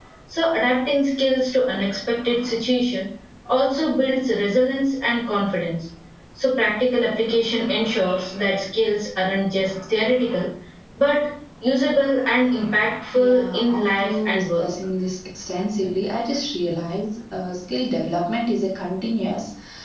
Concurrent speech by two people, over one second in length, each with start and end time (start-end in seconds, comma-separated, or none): 13.1-14.6